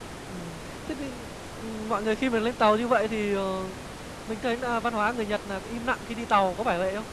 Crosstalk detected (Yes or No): No